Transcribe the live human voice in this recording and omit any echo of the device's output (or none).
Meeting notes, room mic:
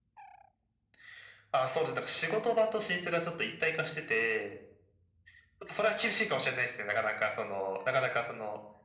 none